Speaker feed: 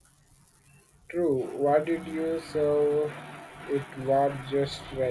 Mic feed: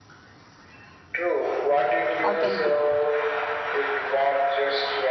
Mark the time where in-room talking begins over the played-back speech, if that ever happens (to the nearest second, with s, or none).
2 s